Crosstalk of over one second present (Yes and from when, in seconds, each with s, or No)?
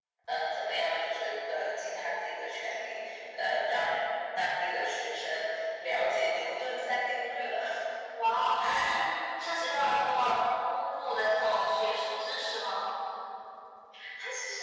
No